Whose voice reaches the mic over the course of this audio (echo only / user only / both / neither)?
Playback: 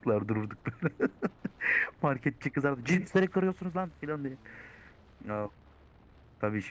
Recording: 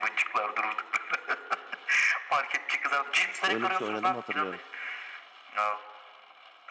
both